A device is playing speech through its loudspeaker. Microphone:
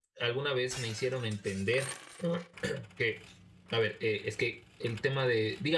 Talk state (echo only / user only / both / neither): user only